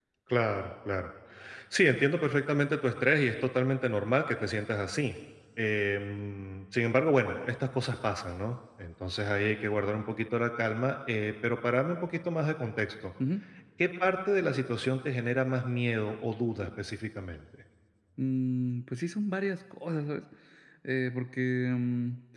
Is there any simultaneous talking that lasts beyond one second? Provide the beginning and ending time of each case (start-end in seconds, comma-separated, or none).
none